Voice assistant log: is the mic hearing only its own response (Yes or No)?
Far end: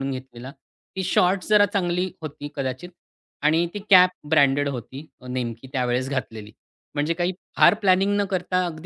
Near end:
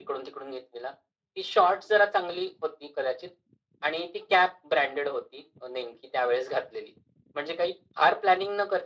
Yes